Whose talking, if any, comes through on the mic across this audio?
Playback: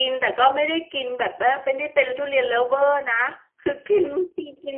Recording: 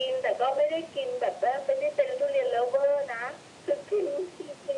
echo only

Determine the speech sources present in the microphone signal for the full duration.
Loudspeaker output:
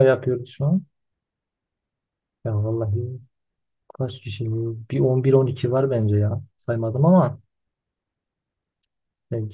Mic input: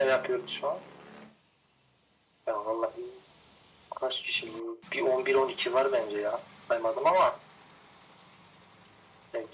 echo only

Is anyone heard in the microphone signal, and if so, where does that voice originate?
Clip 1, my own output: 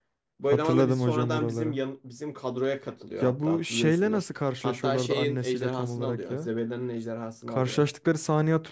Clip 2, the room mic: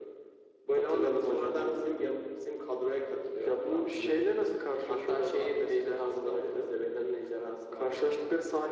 echo only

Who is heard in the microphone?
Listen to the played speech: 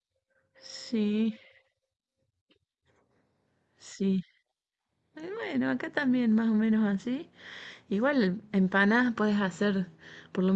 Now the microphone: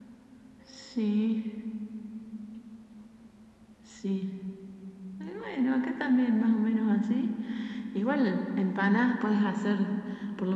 echo only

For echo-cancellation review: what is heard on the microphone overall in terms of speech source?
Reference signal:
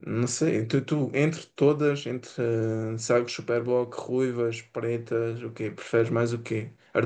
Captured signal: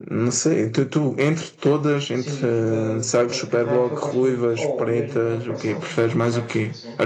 both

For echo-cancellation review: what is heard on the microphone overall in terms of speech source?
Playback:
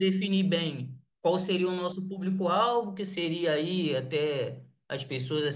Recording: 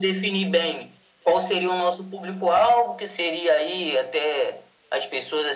echo only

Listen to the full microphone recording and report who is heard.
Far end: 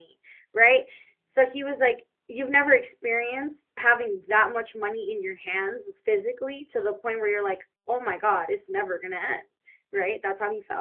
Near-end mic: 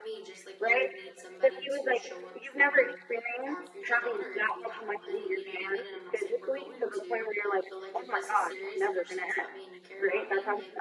both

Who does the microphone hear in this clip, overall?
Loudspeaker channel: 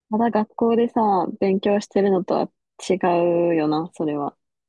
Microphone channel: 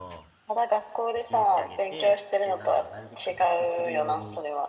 both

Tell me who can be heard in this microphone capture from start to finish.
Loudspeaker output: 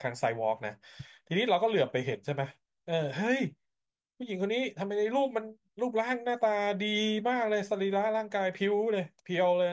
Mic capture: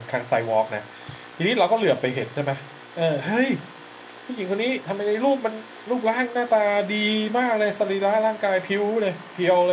echo only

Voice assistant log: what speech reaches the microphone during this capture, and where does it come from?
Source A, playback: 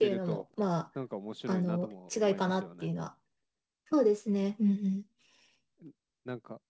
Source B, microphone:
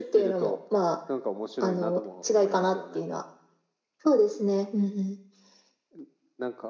echo only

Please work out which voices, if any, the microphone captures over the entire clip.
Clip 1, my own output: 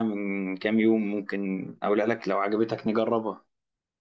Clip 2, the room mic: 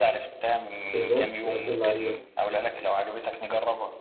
both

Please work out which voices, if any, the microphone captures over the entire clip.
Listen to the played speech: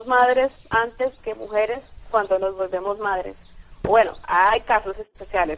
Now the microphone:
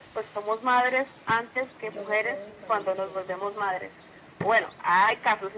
both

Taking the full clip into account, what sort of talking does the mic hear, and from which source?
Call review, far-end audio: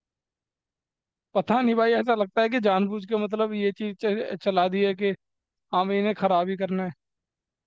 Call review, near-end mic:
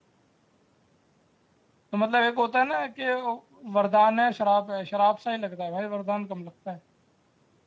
user only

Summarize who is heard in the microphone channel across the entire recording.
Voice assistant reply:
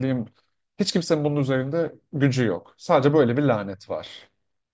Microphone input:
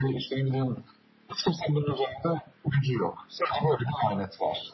echo only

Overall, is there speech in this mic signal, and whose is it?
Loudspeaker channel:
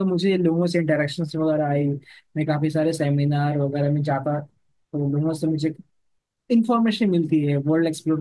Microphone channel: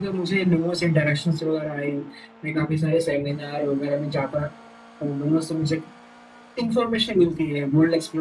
echo only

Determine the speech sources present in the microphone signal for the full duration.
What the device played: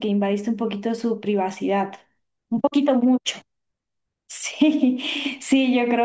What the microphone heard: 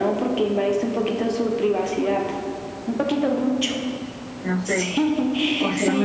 both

